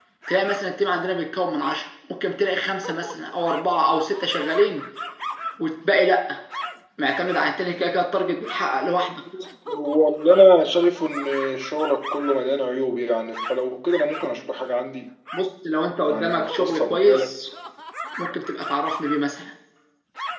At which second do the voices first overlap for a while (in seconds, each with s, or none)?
16.0 s